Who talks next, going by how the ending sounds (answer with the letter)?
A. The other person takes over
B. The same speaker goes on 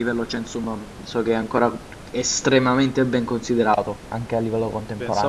A